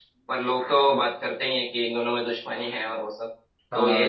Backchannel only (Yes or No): No